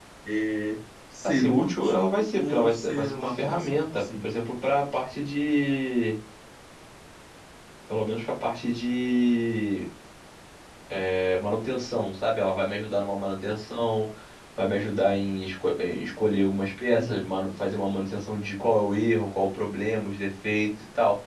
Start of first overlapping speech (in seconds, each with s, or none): 1.2 s